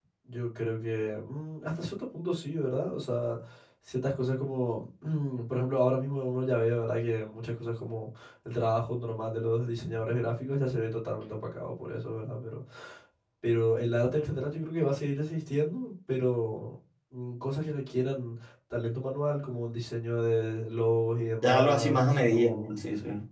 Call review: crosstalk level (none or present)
present